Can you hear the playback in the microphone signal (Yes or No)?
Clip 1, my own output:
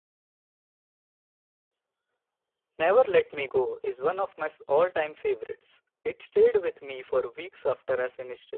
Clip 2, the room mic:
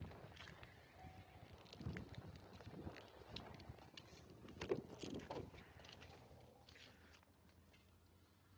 No